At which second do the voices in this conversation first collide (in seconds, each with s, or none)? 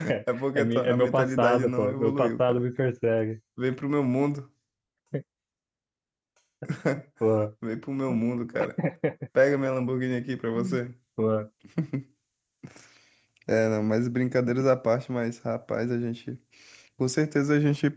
0.6 s